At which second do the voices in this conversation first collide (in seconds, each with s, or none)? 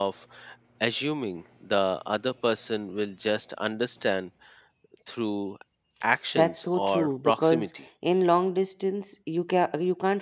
6.3 s